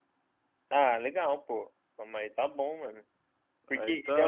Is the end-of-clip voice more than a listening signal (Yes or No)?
No